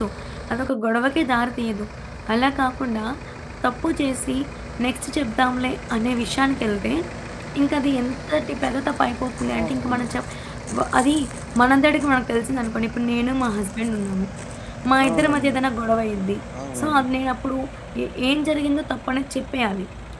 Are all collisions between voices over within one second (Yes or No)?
Yes